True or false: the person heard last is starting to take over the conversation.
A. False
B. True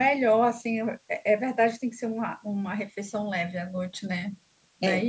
B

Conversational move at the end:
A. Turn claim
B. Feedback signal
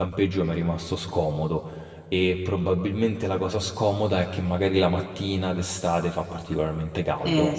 B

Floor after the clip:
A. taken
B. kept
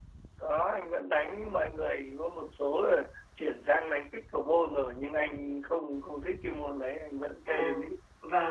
A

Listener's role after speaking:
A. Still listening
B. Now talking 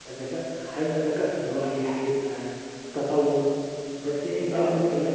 A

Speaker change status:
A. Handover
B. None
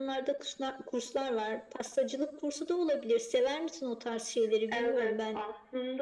A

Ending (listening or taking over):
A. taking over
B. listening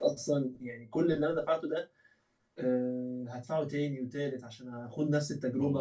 A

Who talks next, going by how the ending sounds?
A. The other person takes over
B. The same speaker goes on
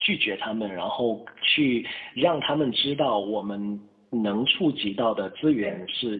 B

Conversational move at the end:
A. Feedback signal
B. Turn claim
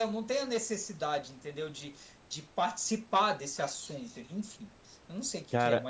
B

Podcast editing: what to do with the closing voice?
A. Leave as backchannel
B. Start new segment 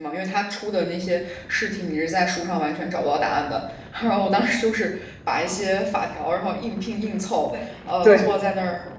A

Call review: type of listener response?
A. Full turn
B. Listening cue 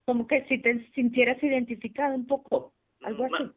A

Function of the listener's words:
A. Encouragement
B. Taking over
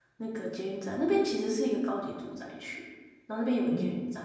A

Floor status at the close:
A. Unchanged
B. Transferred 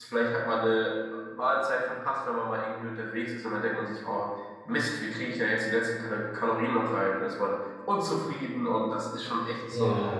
B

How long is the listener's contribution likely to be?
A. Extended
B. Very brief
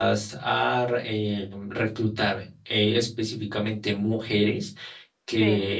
B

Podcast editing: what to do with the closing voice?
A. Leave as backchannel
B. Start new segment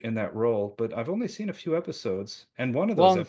A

